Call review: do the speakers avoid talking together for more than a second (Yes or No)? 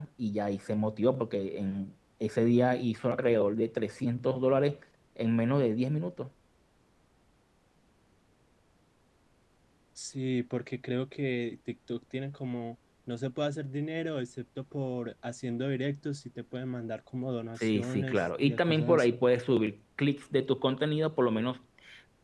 No